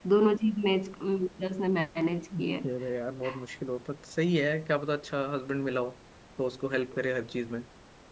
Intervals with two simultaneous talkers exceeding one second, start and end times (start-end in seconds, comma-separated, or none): none